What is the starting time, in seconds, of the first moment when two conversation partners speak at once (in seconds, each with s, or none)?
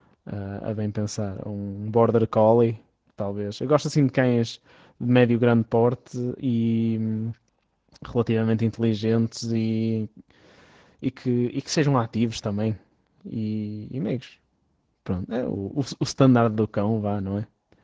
none